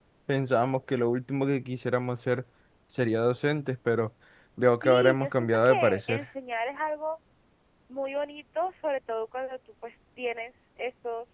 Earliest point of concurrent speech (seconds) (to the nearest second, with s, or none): 5 s